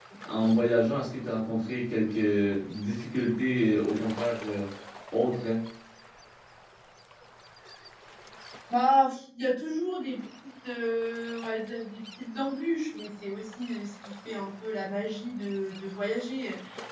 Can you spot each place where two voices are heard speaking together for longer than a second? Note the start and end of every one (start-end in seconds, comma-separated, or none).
none